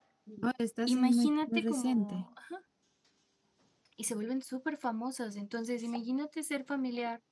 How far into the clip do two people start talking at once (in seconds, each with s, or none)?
0.9 s